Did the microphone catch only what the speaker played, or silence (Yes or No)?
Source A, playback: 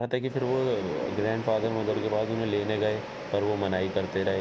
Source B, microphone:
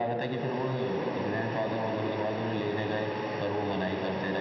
Yes